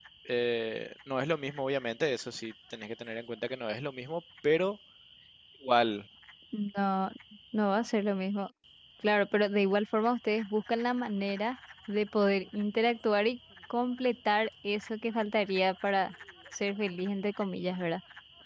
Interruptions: none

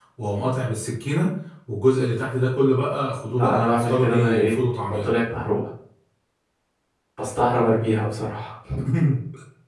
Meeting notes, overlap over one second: present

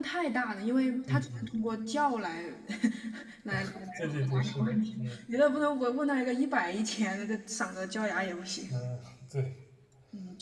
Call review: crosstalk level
present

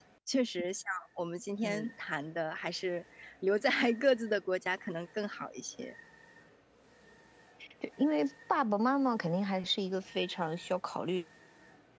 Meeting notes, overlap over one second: none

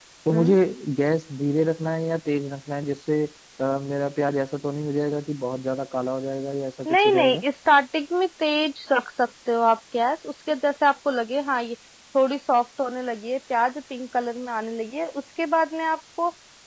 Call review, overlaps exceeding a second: none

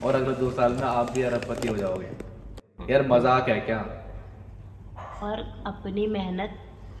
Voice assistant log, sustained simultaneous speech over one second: none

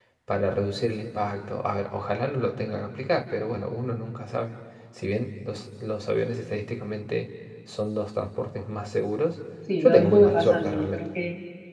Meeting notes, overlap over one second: present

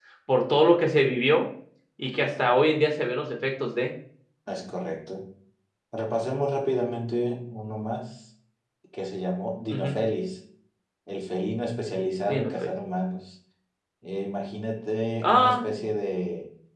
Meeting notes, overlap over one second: none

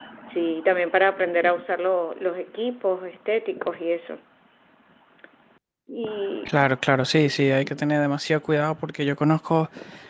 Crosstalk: none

